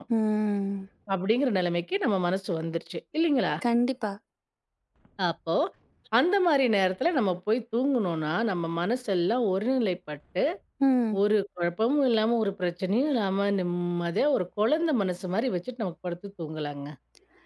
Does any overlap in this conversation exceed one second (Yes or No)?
No